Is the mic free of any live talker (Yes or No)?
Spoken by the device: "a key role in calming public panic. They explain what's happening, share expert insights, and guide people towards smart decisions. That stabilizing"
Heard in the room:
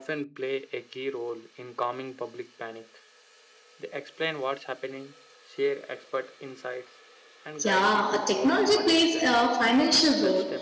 No